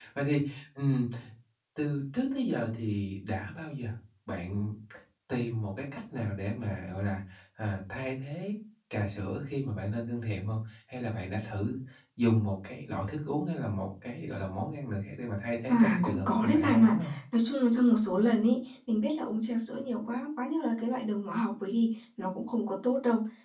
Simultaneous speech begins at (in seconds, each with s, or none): 15.7 s